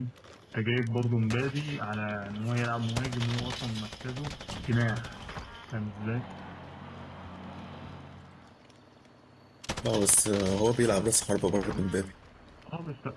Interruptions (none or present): none